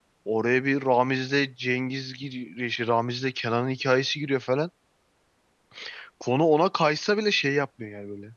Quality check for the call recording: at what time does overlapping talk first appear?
none

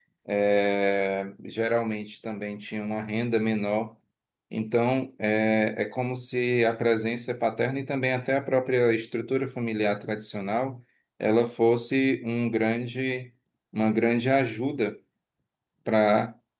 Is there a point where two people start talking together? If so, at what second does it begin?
none

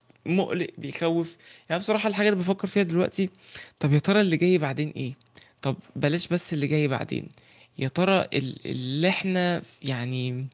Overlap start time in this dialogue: none

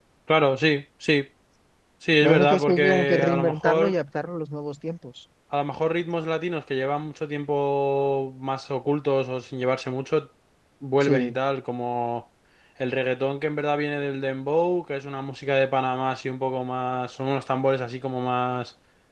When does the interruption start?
2.2 s

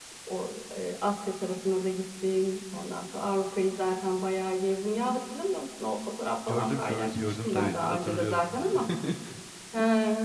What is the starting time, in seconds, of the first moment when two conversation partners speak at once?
6.5 s

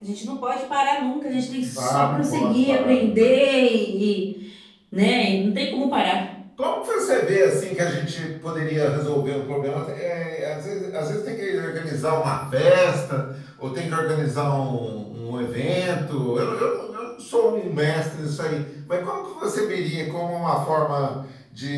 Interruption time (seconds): 1.6 s

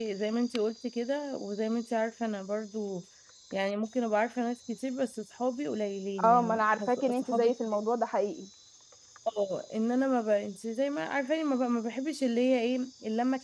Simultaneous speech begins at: 6.2 s

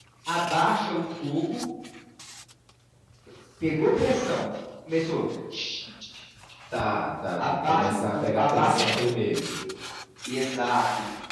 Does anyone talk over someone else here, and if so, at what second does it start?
7.4 s

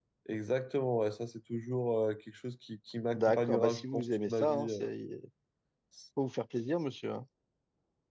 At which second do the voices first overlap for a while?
3.1 s

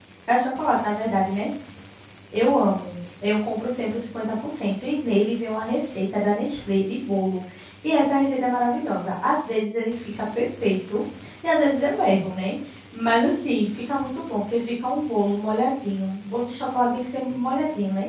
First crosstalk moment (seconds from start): none

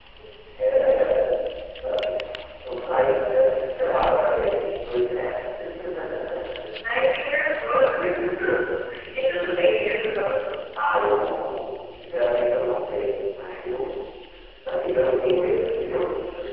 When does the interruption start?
none

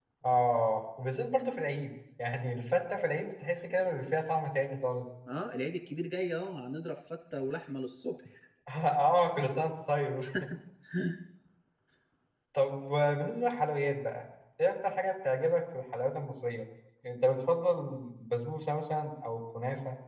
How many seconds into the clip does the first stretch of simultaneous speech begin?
none

